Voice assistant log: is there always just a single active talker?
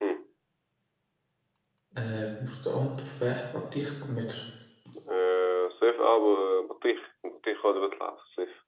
Yes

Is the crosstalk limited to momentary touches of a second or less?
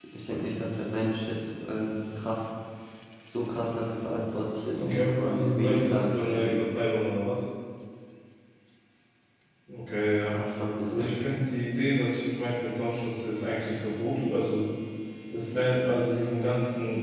No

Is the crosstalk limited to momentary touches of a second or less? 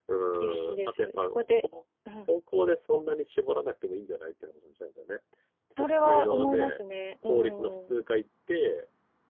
No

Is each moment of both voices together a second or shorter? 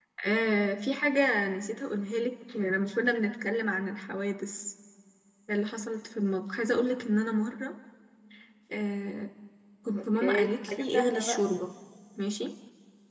No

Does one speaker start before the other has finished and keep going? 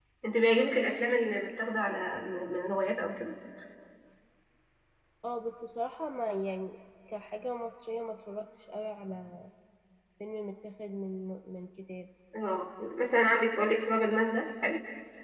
No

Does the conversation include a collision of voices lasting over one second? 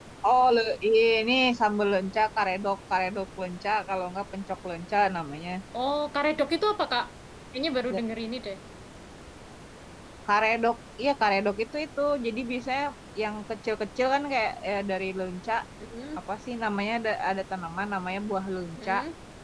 No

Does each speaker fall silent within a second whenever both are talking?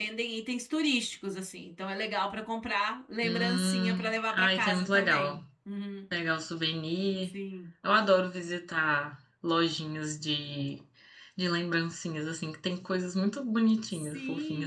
No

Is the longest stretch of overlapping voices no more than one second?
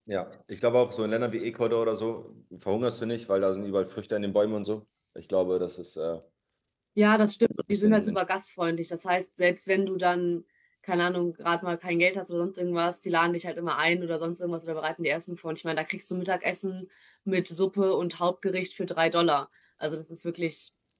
Yes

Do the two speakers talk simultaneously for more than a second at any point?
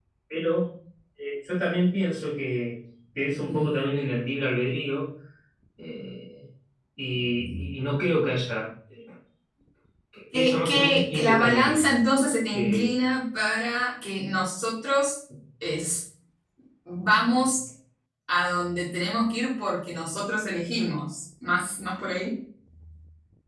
Yes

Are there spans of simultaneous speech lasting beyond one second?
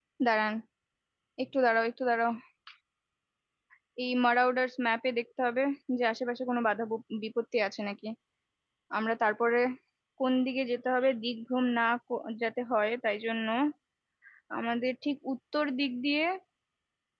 No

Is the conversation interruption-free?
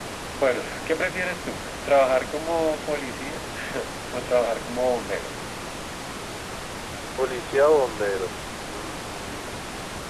Yes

